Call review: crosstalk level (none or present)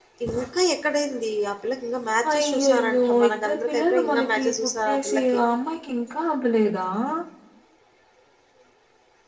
present